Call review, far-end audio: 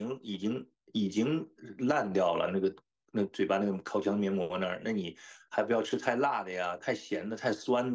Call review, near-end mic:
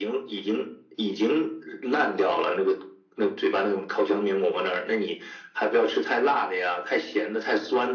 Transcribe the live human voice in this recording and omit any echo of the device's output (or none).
none